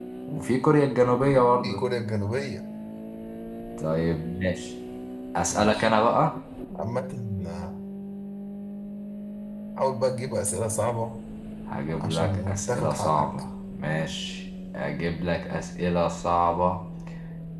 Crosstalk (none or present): present